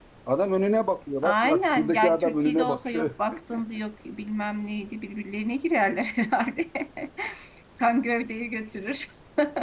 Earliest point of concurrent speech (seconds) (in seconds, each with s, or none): 1.2 s